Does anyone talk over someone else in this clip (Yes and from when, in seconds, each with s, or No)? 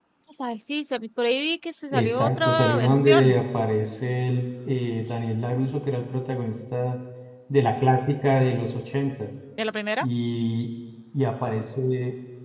Yes, from 1.9 s